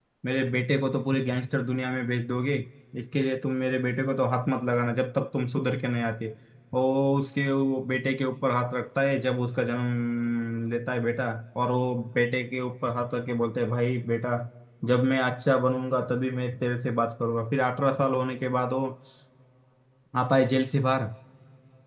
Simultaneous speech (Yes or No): No